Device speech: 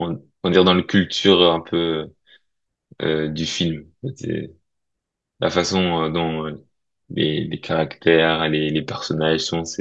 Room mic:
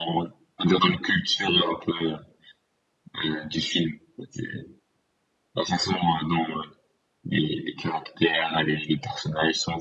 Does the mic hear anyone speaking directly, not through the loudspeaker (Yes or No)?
No